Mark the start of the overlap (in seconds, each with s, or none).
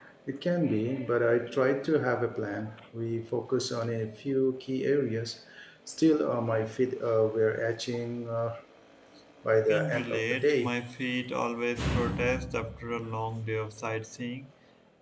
9.5 s